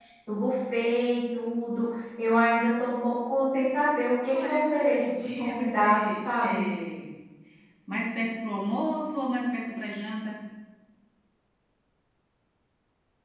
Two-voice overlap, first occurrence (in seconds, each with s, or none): 4.3 s